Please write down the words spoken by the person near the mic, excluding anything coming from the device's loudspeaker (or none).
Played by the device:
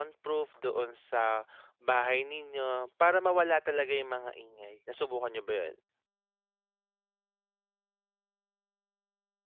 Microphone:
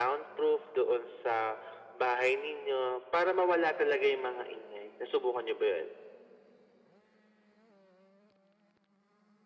none